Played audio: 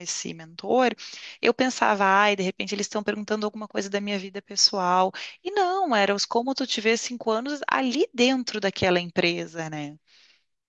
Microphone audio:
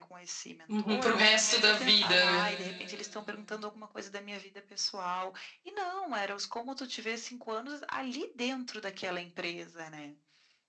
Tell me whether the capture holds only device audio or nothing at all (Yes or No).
No